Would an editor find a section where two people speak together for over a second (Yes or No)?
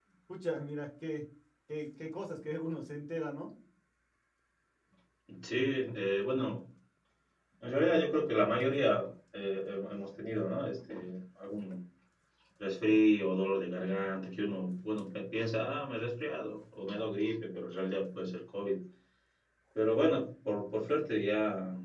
No